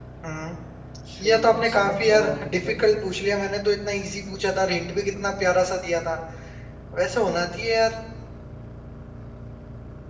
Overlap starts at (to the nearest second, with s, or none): 1 s